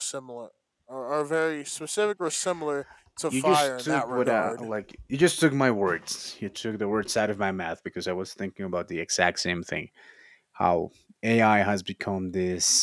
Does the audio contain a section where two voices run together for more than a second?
Yes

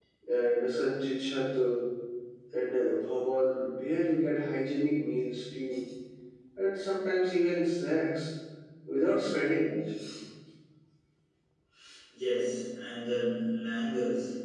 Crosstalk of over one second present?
No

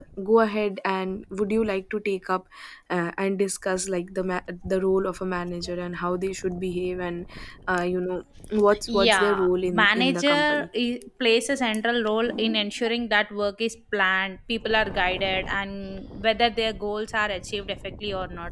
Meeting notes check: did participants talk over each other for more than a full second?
Yes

